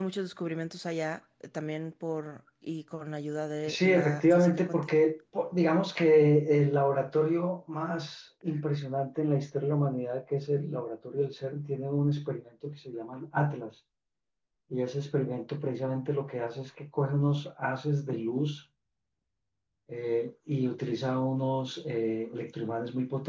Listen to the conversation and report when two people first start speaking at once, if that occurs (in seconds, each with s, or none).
3.7 s